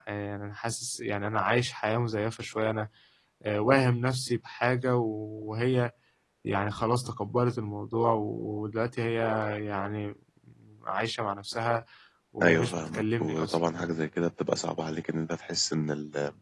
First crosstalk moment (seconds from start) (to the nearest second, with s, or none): 12 s